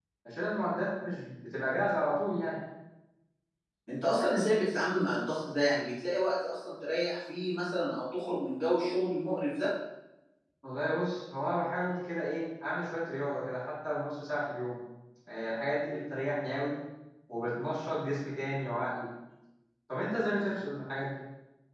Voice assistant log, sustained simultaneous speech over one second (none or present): none